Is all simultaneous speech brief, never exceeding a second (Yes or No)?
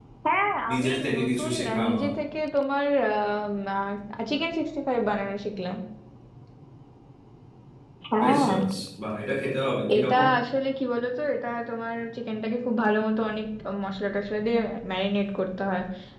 No